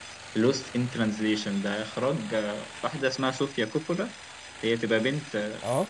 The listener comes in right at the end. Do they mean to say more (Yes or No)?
No